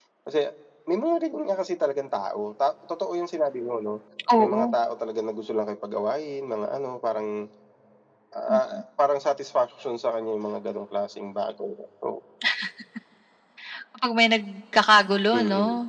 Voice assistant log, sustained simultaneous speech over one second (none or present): none